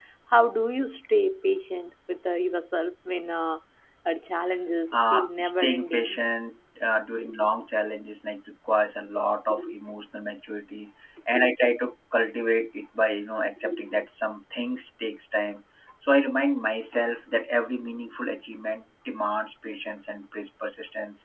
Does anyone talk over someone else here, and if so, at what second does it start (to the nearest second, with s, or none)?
5 s